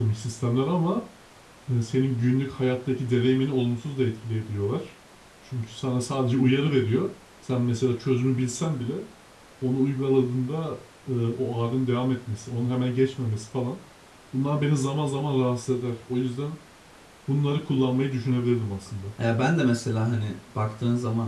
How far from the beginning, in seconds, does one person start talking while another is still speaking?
none

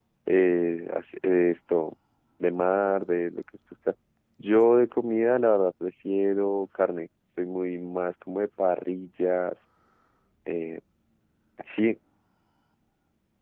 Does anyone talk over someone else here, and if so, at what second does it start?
none

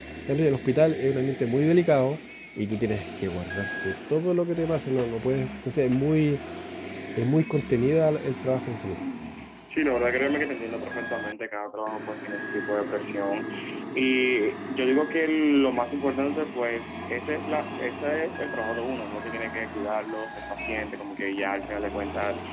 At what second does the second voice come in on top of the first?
none

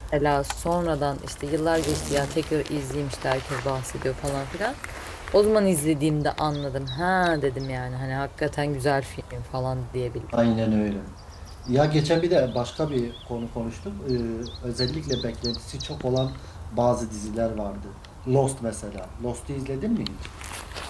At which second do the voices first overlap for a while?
none

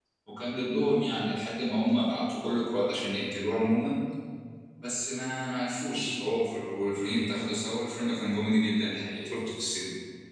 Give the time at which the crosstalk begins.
none

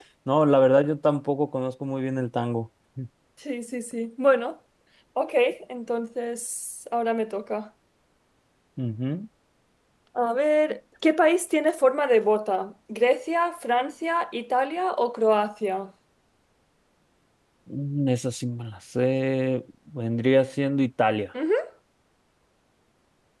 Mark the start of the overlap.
none

